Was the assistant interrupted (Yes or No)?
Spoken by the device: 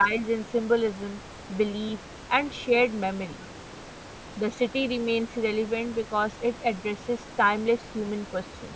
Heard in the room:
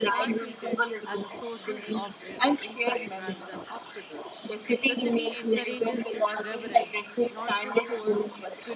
Yes